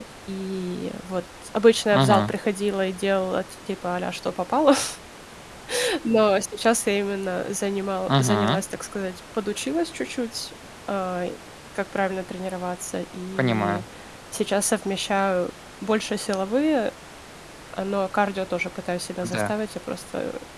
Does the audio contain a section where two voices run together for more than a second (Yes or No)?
No